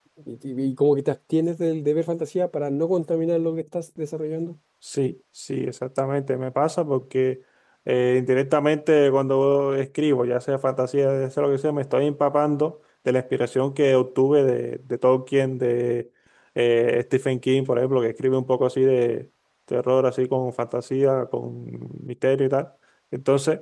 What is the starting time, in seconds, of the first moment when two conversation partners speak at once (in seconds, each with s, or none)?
none